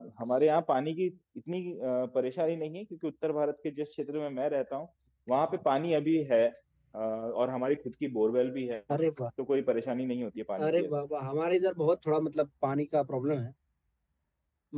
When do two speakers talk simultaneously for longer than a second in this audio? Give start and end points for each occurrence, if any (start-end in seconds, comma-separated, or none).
none